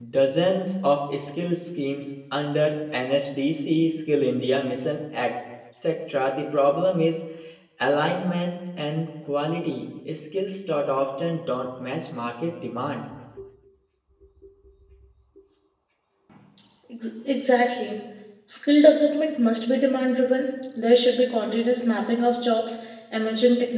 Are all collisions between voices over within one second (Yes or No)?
Yes